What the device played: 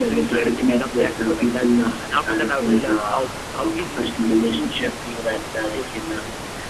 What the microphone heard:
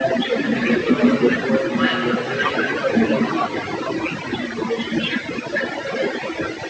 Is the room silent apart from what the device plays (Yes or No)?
No